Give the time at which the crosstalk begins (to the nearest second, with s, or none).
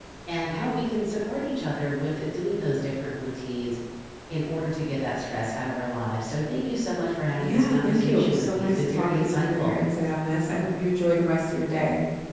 7 s